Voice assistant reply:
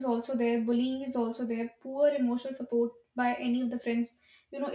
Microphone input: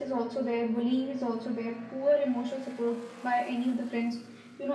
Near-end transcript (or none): none